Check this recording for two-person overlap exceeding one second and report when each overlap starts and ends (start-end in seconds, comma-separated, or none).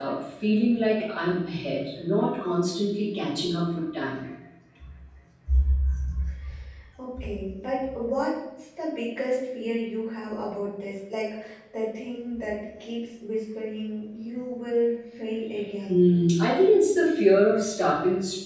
none